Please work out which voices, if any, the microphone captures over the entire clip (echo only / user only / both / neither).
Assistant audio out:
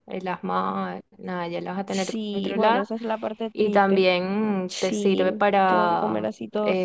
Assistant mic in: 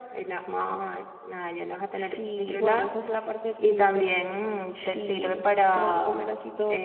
echo only